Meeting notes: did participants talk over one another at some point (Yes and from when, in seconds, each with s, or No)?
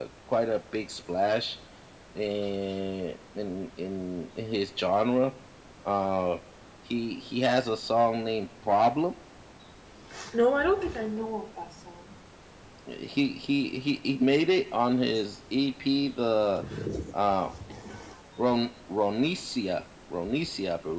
No